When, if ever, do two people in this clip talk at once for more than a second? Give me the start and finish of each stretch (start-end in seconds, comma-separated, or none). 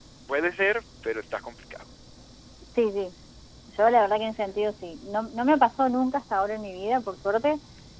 none